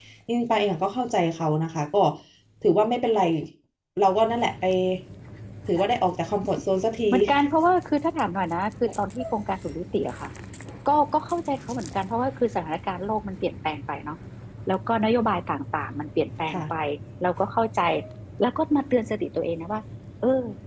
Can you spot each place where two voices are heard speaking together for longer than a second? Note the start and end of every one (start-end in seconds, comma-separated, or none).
none